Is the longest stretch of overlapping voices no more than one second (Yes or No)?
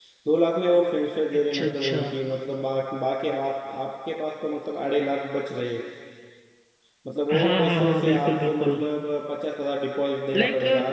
No